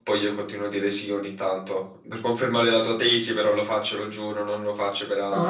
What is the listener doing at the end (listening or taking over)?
taking over